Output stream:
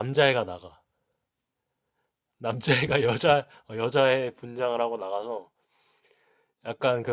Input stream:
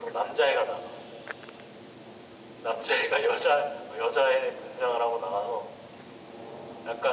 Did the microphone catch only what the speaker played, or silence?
Yes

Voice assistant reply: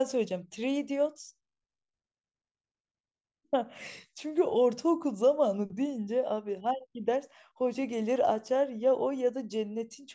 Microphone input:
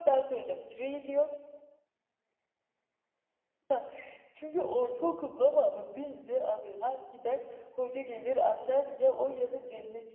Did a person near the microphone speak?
No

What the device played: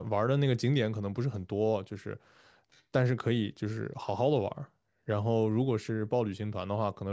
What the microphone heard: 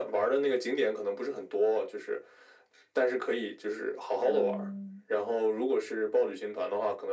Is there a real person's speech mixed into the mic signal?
Yes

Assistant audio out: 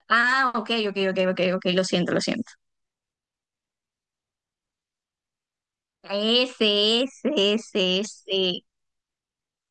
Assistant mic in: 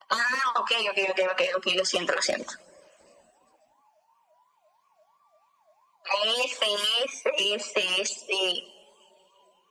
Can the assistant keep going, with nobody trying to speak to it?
Yes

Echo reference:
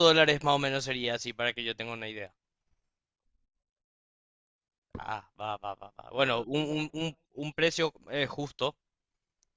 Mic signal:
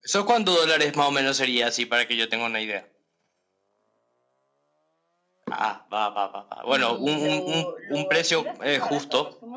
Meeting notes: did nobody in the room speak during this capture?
No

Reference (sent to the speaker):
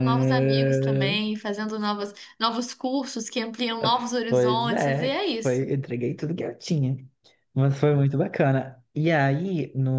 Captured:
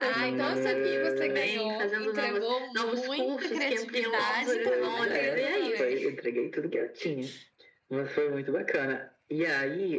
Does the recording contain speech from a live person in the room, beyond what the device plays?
Yes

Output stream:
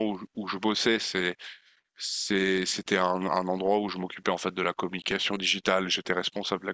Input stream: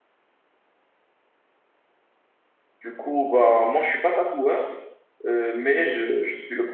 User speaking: Yes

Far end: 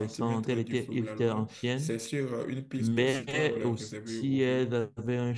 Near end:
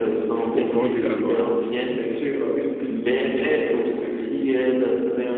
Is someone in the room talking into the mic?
Yes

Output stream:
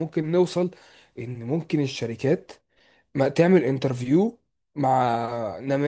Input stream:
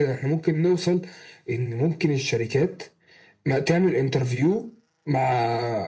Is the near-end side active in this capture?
No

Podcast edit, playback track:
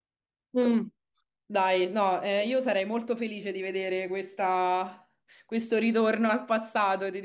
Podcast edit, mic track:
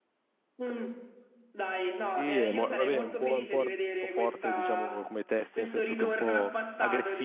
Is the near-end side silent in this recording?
No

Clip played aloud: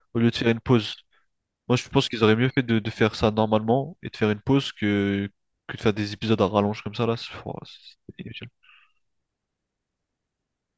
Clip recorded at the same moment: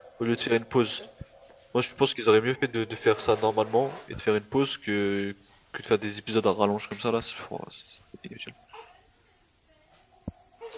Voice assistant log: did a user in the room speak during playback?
No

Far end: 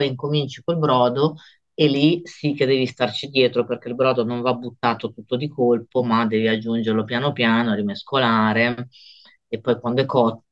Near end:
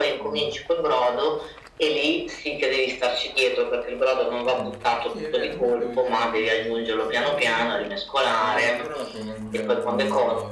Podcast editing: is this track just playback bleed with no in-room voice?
No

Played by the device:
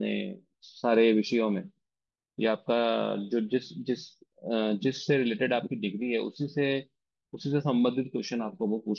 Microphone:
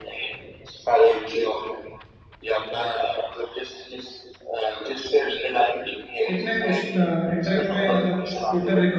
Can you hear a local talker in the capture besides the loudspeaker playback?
Yes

